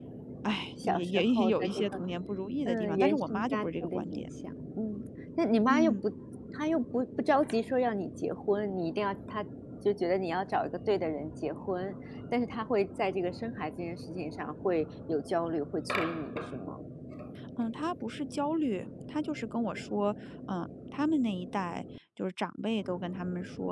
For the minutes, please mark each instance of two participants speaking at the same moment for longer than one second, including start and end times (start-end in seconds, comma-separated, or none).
0.8-2.0, 2.6-4.3